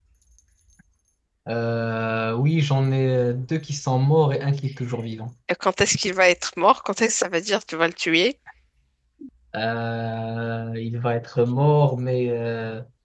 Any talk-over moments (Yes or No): No